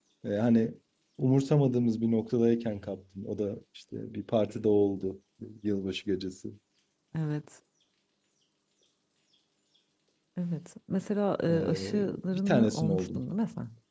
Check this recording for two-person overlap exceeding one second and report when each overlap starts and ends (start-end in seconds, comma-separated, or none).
11.5-13.2